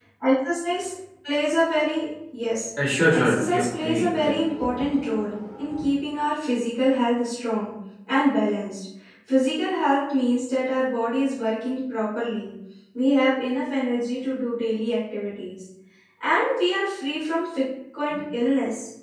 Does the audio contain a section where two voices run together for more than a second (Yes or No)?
Yes